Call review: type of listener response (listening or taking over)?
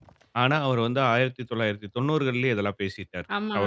taking over